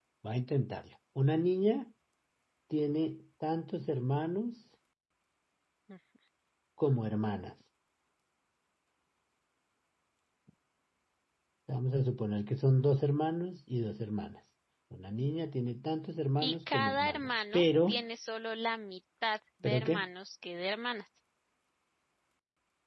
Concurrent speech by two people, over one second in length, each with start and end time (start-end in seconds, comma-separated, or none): 16.4-18.0